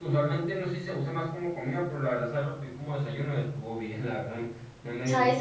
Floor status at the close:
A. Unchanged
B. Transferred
B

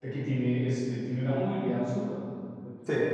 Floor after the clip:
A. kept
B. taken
A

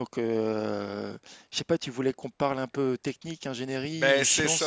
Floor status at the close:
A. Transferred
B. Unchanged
A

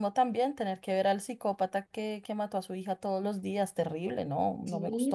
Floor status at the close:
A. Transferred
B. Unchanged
A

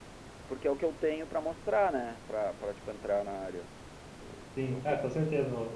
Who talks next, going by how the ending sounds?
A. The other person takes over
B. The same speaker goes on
A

